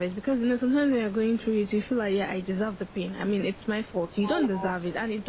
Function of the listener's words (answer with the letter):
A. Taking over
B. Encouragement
B